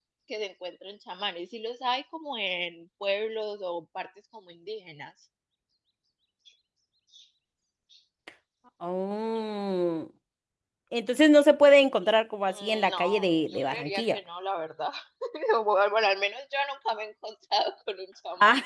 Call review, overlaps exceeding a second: present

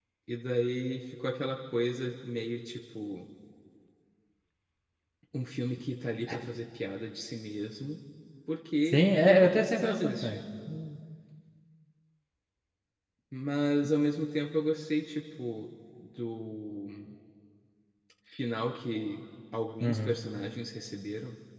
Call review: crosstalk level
present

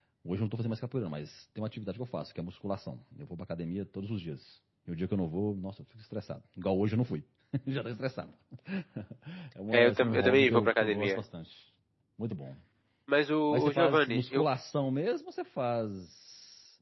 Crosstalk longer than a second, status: present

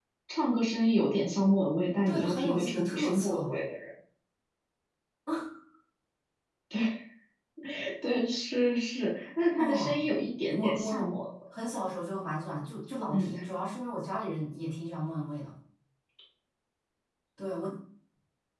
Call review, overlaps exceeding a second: present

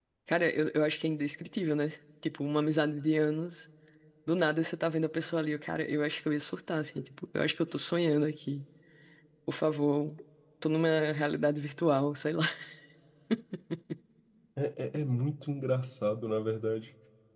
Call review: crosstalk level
none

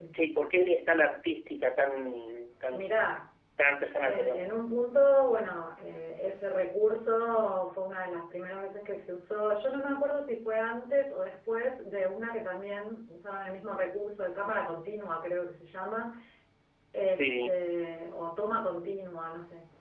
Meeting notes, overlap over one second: none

